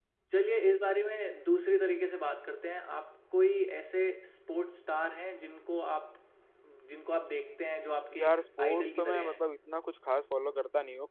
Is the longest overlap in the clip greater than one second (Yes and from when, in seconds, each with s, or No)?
Yes, from 8.1 s